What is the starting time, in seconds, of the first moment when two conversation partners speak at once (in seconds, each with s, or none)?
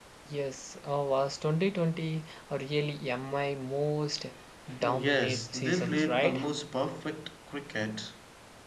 4.8 s